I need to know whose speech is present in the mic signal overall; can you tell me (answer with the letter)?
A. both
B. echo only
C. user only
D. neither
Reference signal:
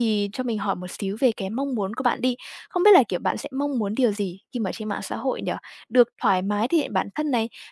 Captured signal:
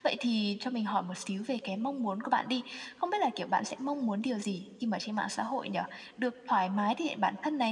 B